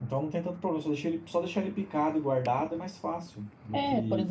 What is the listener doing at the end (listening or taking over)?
taking over